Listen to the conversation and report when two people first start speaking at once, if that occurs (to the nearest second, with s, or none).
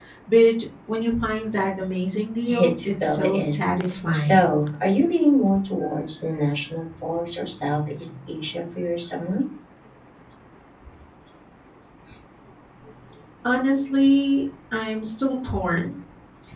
2 s